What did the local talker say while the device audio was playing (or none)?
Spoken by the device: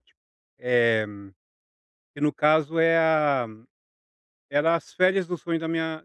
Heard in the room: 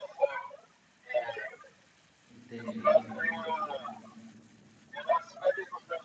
Entendi.